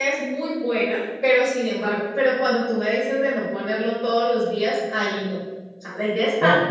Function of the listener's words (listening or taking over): listening